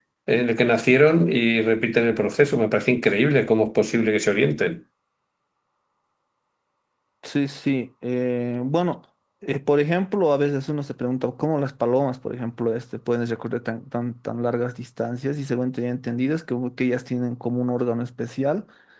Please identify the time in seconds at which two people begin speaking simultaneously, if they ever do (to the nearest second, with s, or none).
none